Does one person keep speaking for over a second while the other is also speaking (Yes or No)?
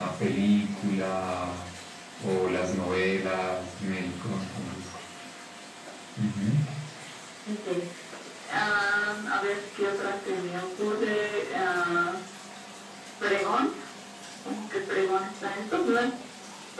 No